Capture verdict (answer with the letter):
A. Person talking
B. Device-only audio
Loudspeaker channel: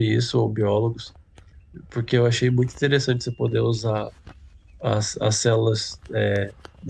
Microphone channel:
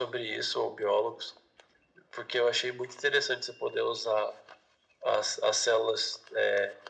B